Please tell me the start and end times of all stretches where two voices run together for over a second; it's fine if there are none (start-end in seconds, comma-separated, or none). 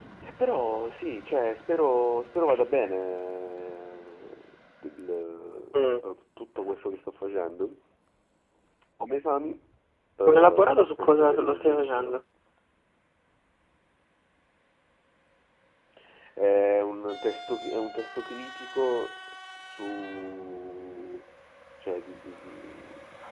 10.3-12.2